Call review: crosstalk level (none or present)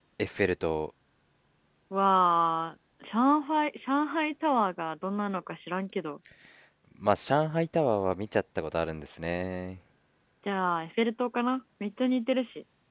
none